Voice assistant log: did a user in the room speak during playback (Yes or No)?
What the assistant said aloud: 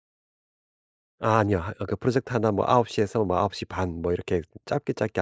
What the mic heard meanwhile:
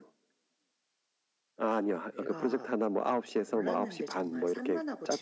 Yes